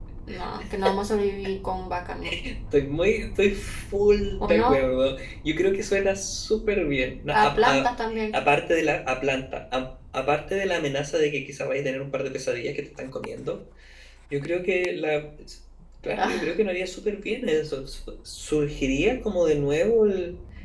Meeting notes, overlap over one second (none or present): none